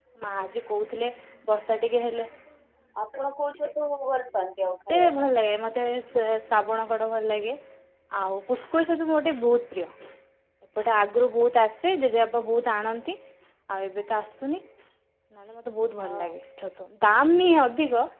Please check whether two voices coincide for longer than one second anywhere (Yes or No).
No